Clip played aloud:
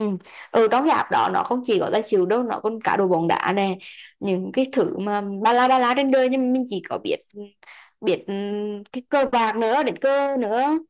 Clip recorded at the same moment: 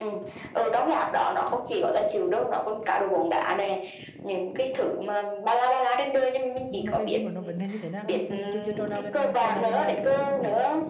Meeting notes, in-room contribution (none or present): present